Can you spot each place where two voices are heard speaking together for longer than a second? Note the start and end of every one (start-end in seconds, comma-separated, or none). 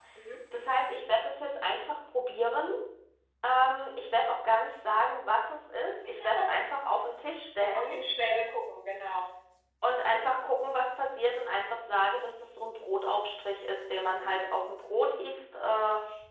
none